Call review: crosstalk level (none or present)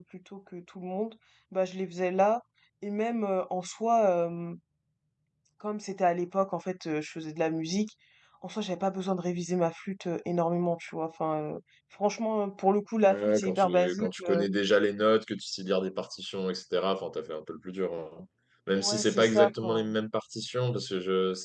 present